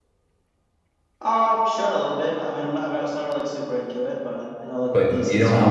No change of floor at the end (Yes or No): No